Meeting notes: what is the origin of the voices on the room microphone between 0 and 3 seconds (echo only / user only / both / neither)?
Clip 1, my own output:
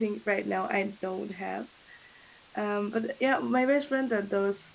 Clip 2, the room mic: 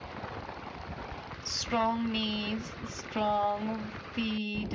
user only